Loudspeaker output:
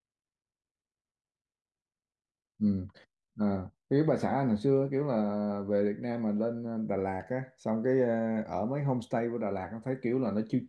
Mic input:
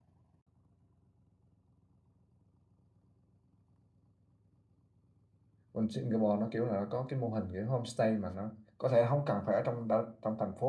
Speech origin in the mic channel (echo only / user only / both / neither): user only